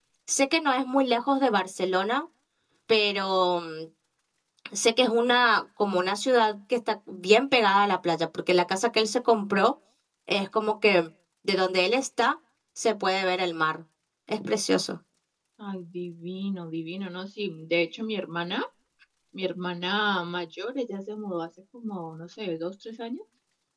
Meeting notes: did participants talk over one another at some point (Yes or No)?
No